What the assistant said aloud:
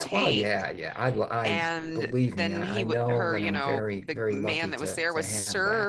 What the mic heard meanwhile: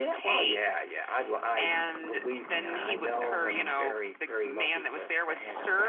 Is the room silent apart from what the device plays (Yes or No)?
Yes